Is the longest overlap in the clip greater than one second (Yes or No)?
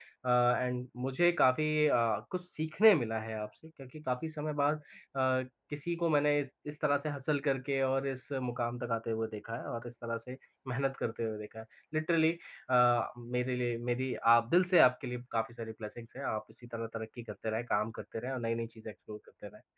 No